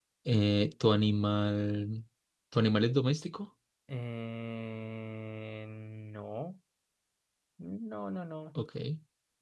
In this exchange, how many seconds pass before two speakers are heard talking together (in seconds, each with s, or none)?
none